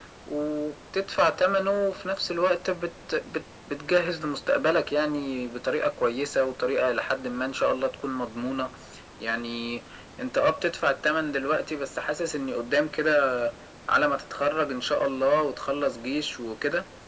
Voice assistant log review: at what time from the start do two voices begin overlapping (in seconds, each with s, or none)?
none